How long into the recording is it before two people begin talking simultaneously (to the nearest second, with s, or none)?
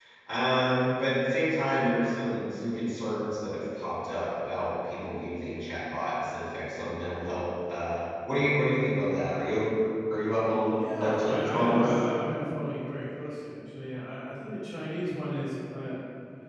11 s